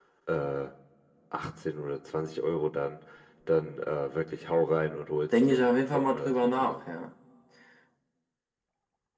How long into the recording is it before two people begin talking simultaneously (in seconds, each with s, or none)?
5.3 s